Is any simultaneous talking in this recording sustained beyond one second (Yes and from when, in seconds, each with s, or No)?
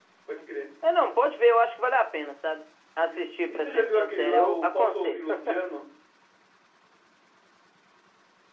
Yes, from 3.1 s